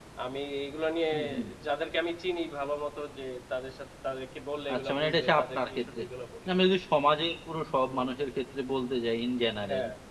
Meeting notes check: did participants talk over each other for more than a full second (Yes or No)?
Yes